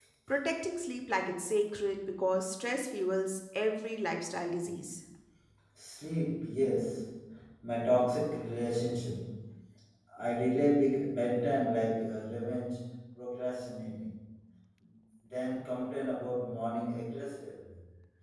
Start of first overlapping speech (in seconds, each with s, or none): none